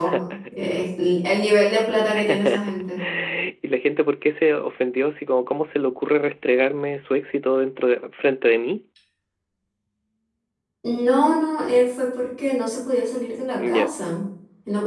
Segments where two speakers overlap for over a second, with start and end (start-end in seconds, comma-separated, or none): none